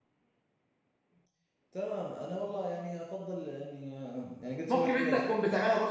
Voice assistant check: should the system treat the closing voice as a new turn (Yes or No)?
Yes